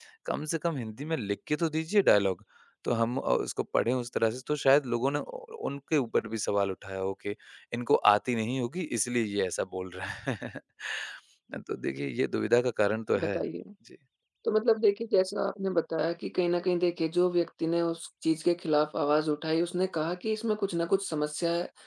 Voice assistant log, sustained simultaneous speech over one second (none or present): none